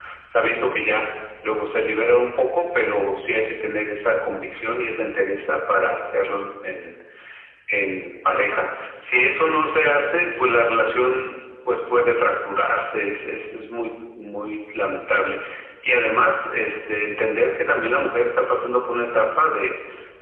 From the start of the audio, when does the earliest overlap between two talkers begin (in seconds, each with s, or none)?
none